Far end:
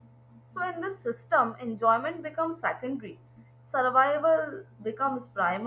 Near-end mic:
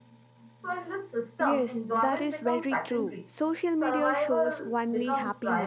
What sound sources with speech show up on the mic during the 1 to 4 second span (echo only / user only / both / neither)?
both